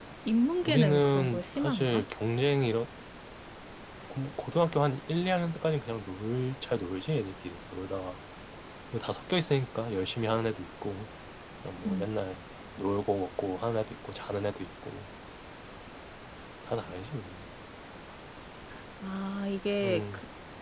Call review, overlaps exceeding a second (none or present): present